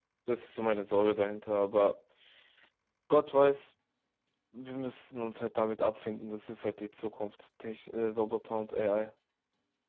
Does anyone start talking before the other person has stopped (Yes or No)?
No